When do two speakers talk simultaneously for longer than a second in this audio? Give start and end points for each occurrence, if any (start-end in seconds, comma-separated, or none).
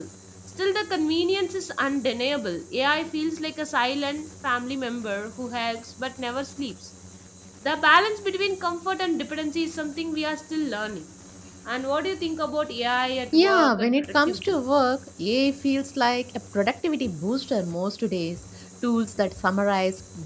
13.3-14.6